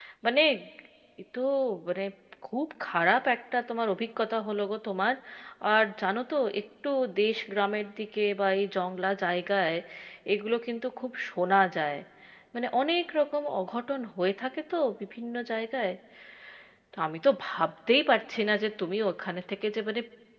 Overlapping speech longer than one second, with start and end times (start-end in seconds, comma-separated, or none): none